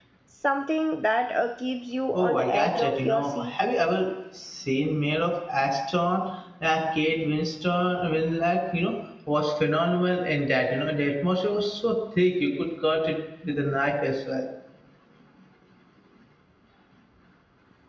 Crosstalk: present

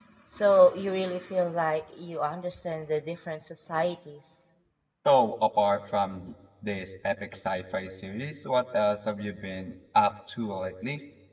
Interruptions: none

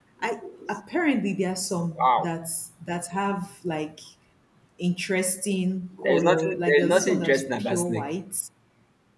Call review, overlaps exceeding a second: present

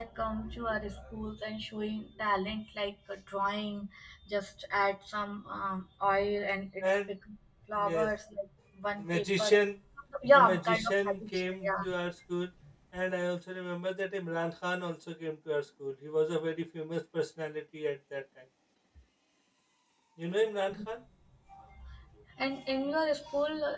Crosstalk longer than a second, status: present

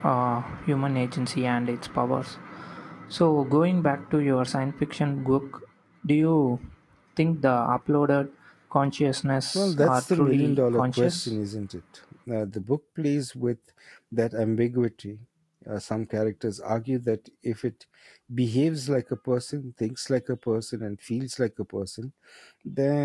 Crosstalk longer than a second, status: present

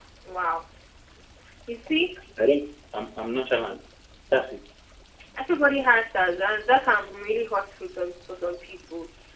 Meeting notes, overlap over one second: none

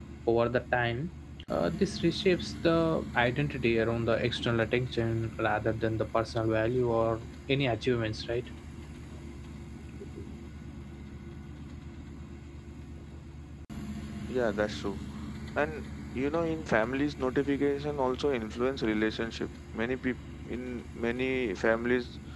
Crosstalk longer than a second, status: none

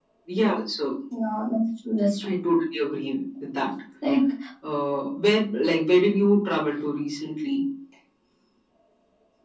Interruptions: none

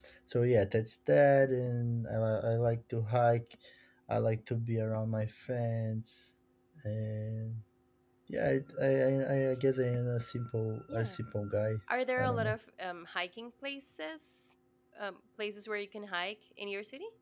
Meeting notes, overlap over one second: none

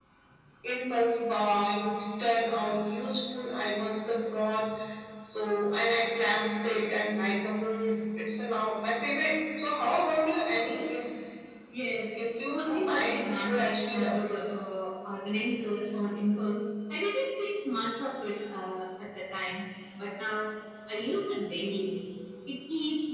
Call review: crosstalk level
present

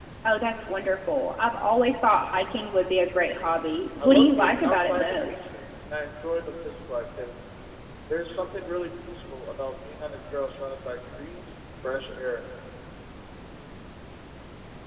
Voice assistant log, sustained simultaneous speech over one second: present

